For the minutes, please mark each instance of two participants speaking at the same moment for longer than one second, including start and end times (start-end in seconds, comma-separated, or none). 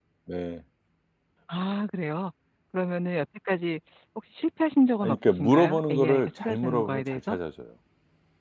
5.0-7.4